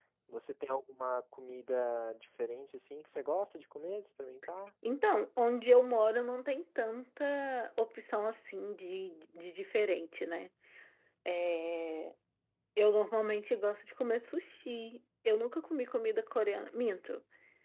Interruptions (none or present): none